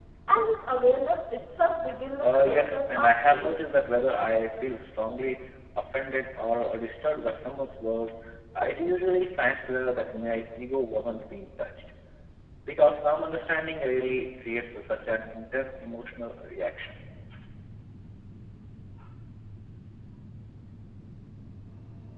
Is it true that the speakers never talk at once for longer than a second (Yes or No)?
No